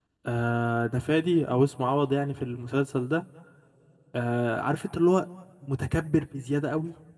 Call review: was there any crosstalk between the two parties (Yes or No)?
No